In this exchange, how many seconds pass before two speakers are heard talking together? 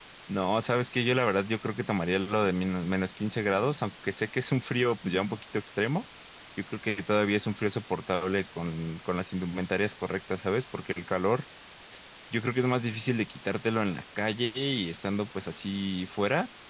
none

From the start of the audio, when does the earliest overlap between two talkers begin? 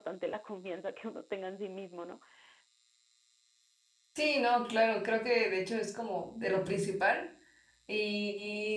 none

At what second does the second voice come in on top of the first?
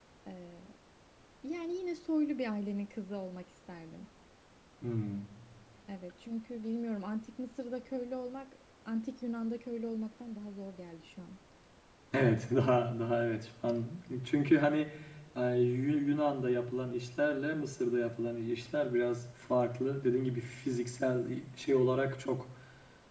none

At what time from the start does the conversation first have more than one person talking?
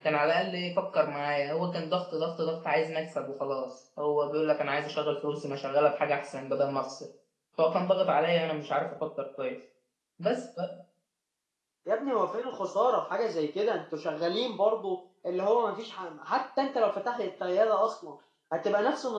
none

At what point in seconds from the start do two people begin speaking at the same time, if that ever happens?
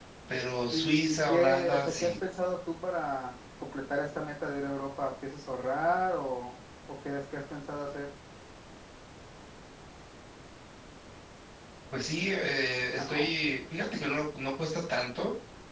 0.7 s

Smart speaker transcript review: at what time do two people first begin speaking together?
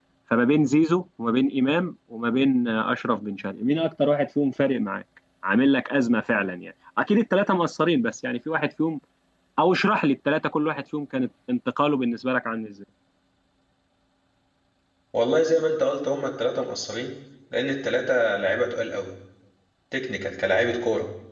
none

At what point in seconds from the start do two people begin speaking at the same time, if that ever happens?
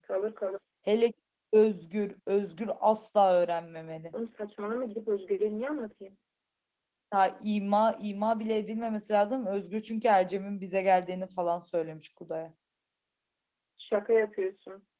none

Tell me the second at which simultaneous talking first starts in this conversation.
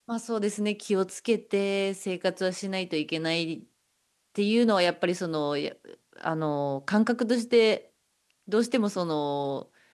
none

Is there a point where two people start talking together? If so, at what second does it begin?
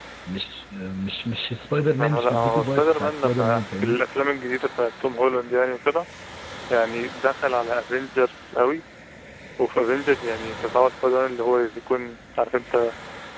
2.0 s

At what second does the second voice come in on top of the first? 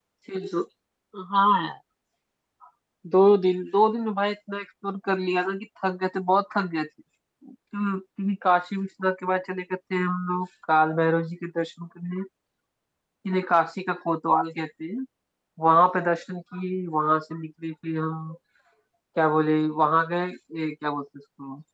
none

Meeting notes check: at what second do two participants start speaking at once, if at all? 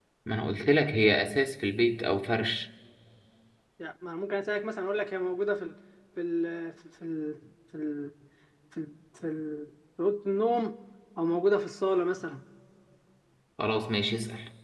none

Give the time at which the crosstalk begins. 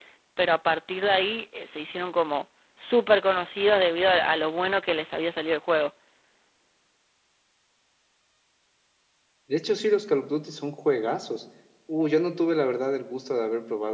none

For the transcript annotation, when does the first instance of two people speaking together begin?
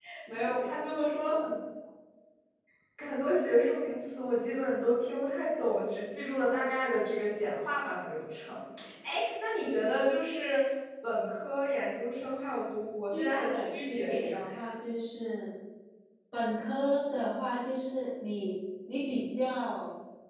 13.1 s

